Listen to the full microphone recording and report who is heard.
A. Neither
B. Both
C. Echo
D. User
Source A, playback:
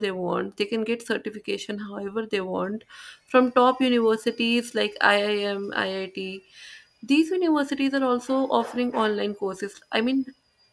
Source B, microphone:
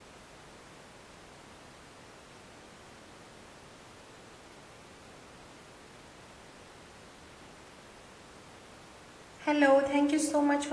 D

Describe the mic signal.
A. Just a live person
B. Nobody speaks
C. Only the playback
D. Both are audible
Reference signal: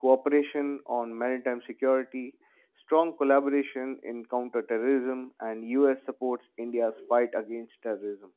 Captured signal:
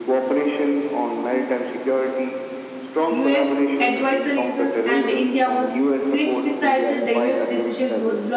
D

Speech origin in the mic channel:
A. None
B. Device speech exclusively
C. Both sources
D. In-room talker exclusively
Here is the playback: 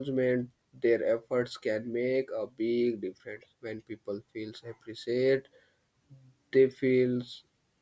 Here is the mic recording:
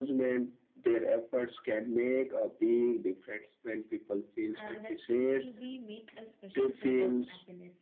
C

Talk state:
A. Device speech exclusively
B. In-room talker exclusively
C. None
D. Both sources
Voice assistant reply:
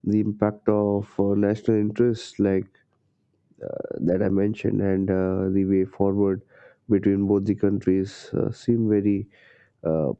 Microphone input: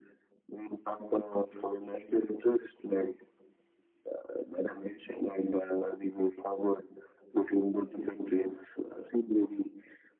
A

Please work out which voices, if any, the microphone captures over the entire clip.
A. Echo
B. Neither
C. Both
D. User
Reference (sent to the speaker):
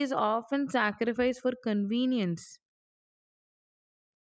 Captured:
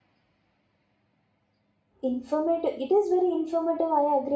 D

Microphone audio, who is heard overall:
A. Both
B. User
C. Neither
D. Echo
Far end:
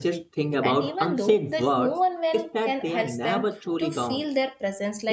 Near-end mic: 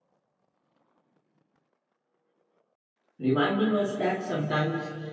B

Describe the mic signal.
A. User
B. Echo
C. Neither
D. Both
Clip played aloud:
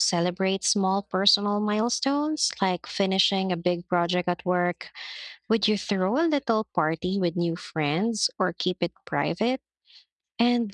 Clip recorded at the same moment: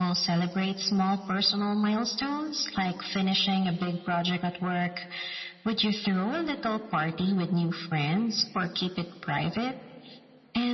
B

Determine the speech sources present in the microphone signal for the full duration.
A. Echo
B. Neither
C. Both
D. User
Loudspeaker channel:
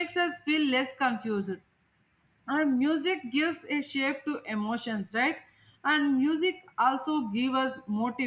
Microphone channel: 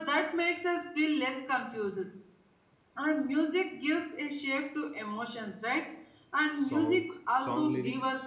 C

